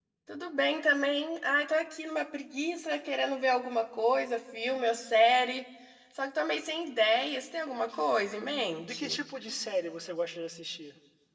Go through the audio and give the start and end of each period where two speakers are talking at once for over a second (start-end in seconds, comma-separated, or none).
none